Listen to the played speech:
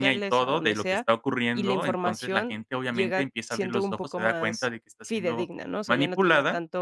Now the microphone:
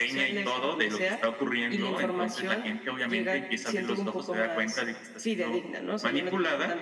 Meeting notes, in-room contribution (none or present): none